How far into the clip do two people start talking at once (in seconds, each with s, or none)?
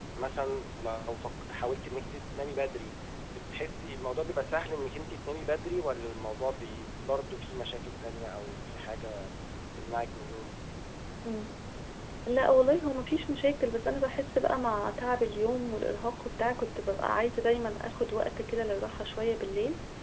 none